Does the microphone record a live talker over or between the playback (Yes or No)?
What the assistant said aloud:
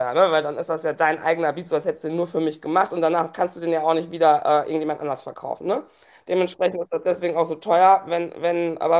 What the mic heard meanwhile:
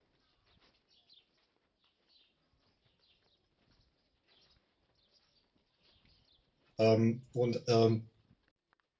Yes